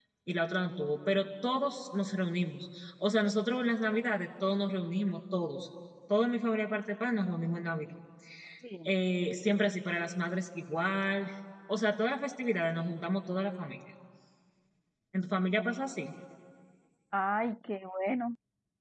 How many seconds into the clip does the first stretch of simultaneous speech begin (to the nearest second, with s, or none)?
none